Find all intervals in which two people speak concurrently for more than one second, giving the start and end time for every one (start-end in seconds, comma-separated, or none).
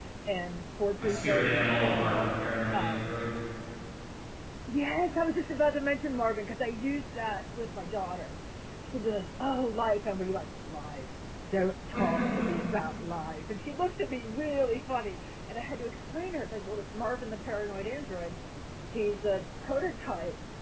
1.0-2.2